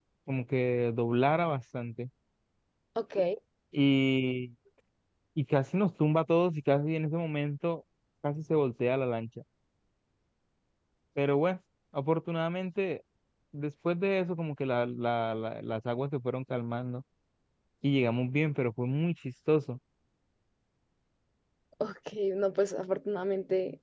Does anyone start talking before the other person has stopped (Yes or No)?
No